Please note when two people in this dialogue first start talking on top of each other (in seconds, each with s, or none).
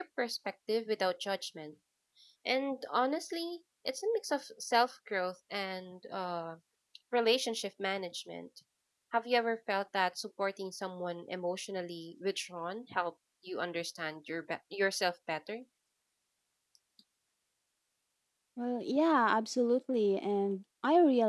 none